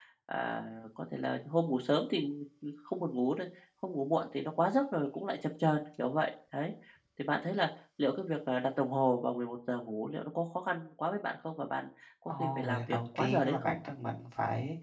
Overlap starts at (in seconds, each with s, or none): 12.3 s